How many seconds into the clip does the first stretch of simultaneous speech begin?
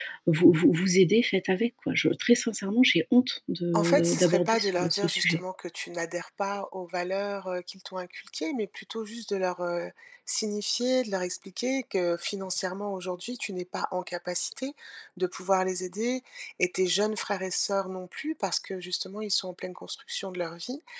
3.7 s

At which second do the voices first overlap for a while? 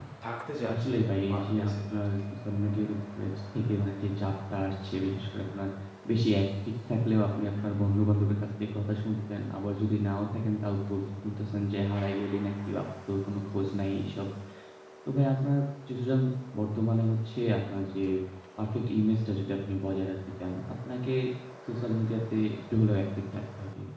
0.7 s

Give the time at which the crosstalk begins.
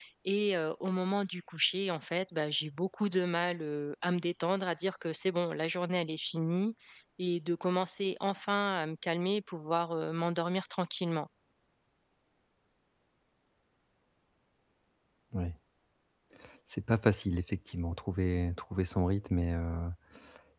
none

